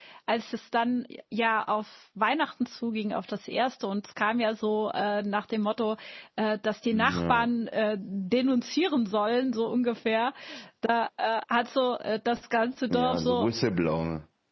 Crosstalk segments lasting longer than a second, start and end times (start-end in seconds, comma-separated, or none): none